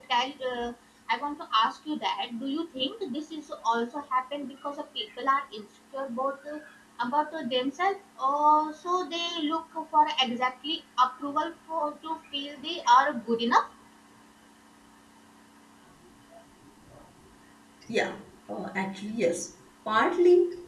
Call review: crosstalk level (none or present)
none